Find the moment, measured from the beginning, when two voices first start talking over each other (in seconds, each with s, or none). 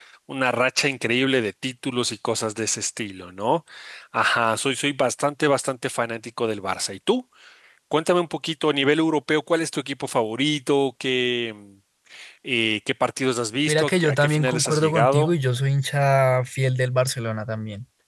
13.7 s